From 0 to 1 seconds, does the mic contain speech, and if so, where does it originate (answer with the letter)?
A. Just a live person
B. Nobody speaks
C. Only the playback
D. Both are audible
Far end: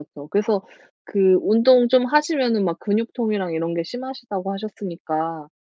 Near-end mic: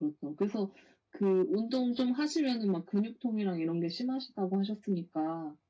C